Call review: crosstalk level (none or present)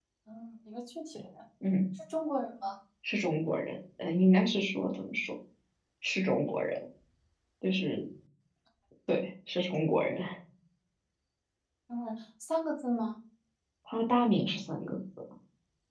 none